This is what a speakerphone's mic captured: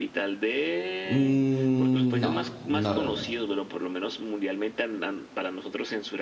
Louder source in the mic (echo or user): user